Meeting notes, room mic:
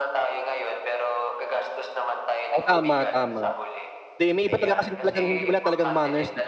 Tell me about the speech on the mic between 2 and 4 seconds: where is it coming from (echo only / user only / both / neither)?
both